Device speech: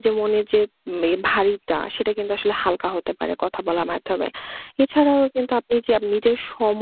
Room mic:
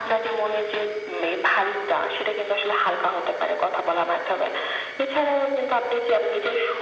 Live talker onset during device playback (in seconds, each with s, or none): none